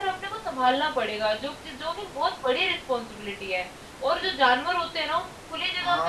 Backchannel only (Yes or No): Yes